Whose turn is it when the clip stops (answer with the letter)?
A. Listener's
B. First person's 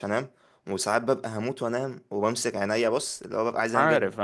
B